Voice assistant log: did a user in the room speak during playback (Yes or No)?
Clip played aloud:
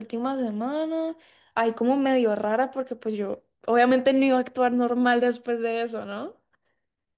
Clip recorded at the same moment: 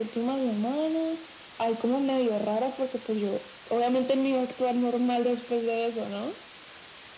No